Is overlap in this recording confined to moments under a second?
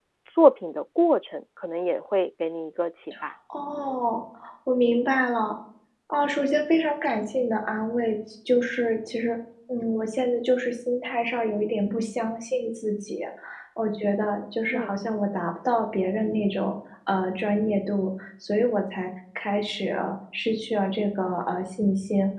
Yes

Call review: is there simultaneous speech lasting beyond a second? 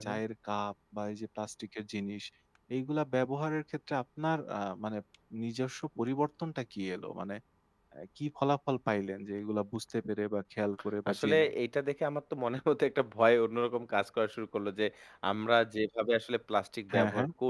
No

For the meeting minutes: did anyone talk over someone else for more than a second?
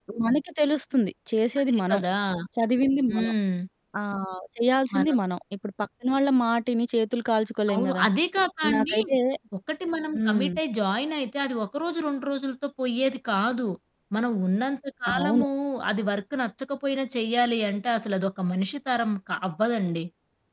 No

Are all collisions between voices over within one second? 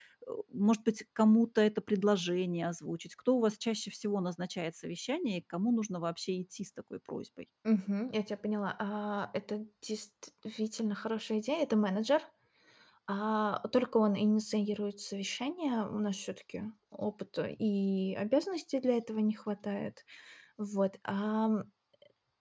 Yes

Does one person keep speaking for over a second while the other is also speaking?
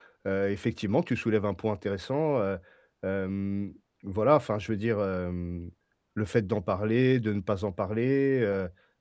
No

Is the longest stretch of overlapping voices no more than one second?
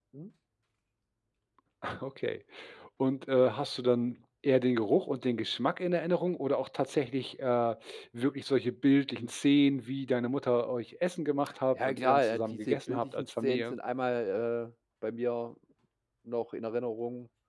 No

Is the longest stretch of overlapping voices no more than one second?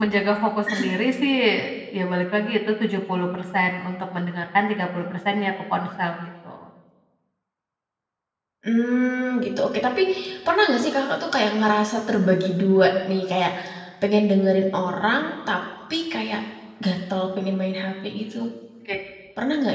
Yes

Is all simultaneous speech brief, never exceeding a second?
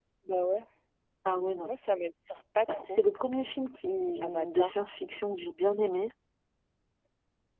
Yes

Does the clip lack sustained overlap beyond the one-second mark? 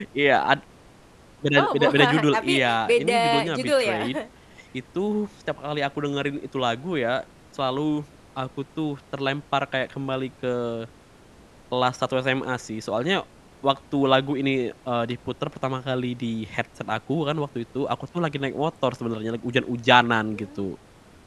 No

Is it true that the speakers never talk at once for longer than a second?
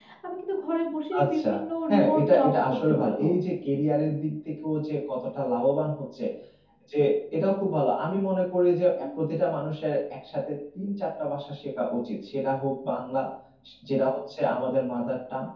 No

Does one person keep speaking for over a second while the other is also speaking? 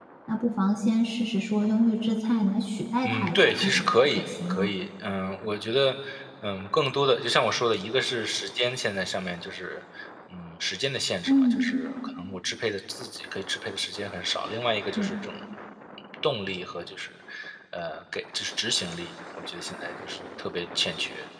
Yes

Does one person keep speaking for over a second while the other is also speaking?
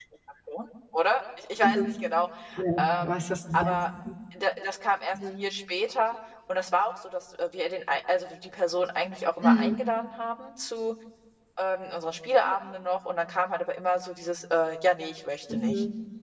No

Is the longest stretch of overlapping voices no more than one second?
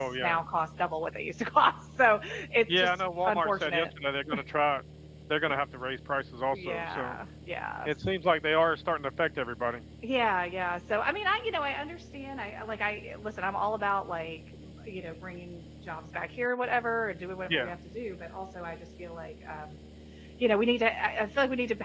No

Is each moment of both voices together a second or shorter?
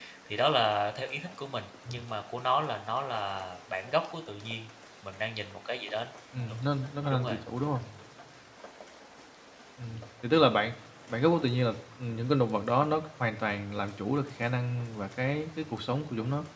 Yes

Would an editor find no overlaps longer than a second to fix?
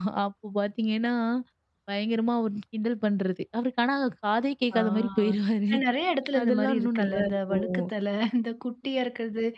No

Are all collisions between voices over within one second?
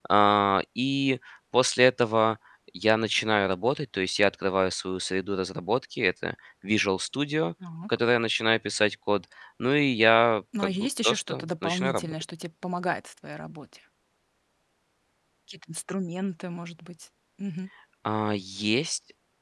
No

